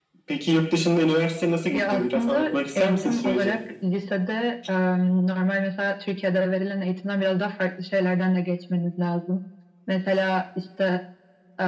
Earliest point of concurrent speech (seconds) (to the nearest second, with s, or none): 2 s